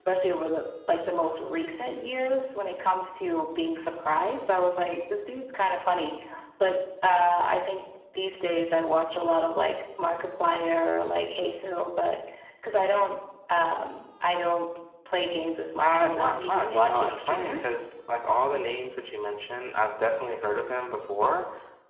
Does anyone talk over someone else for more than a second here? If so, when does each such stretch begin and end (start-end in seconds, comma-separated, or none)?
15.8-17.8